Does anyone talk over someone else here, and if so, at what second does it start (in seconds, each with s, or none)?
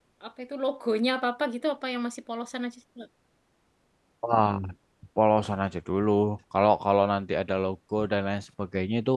none